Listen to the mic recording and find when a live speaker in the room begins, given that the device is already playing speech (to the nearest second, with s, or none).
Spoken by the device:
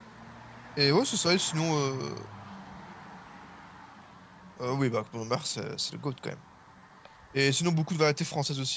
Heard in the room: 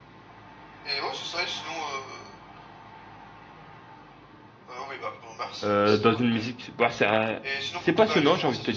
6 s